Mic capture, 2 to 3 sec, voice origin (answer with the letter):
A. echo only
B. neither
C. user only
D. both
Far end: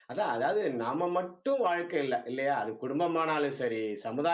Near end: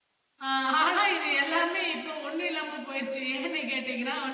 C